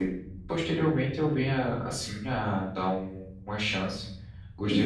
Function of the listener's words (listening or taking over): taking over